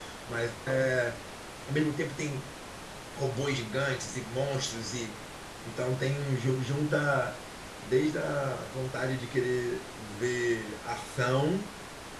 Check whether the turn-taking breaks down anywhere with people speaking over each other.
No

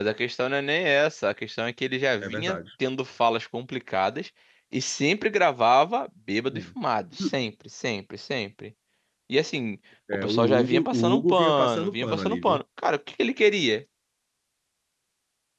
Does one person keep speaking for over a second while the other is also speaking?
Yes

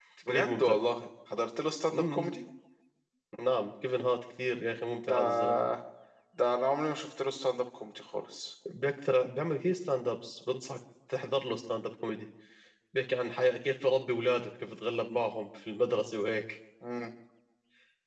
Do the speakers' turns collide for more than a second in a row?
No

